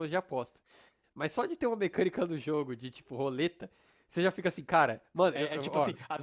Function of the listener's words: taking over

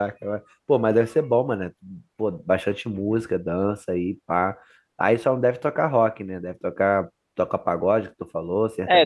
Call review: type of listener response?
taking over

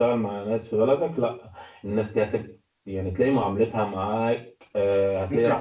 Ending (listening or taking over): taking over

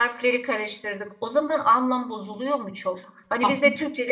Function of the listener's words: listening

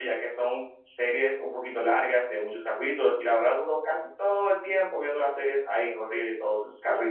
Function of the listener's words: taking over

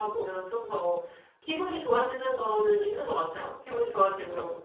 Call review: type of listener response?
listening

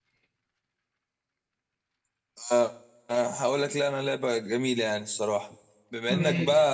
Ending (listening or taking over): listening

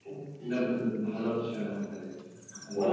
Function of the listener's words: listening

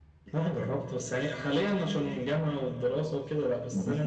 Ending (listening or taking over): listening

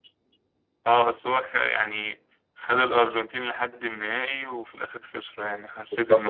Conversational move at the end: taking over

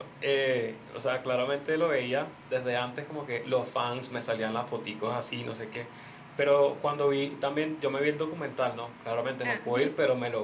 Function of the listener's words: listening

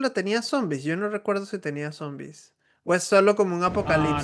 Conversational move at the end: taking over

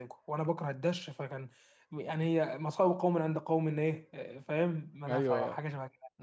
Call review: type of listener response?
taking over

